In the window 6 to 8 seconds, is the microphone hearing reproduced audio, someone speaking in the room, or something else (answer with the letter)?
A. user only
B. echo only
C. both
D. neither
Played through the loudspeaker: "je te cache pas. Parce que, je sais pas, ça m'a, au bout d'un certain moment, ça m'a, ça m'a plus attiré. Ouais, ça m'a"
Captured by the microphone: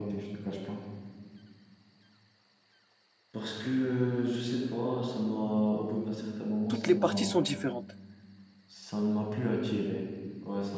C